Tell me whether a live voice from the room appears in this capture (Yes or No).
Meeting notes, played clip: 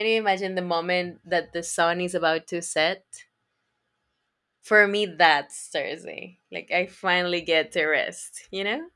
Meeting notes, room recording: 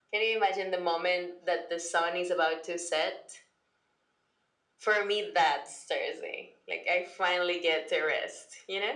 No